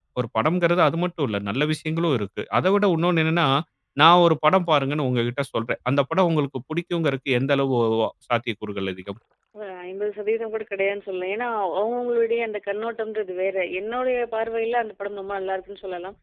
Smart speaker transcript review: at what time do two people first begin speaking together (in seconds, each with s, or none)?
none